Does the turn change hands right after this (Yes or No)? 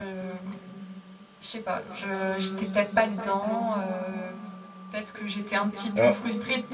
No